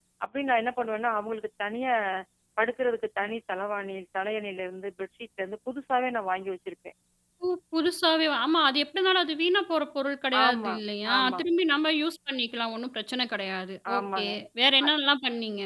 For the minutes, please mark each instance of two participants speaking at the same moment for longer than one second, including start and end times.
none

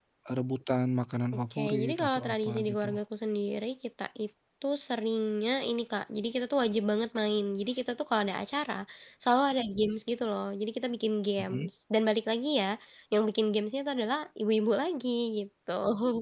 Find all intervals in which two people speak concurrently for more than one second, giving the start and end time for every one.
1.5-2.9

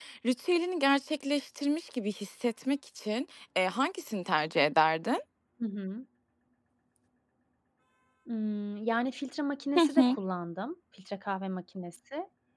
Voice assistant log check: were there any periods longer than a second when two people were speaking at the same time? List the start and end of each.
none

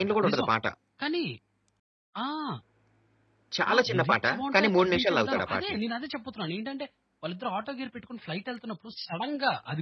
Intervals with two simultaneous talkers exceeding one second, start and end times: 3.7-5.8

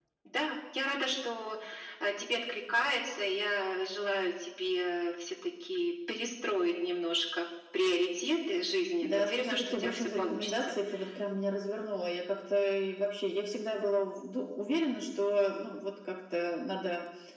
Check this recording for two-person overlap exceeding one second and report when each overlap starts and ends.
9.0-10.7

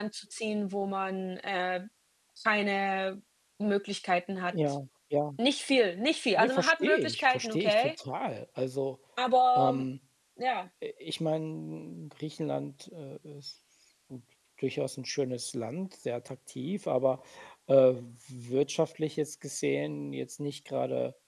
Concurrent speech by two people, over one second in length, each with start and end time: 6.4-7.9

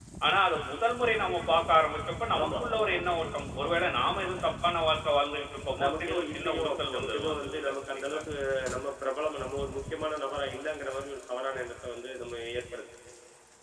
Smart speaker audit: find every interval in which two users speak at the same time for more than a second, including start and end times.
5.8-8.2

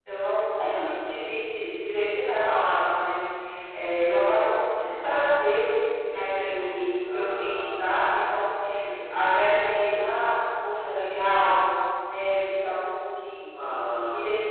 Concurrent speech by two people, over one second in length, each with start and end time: 6.1-7.7

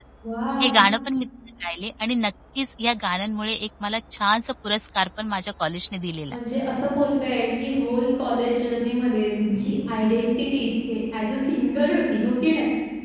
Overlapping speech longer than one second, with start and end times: none

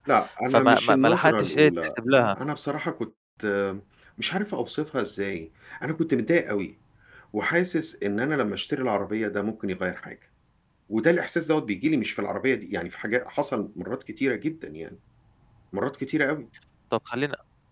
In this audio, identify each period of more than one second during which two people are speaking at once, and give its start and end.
0.5-1.7

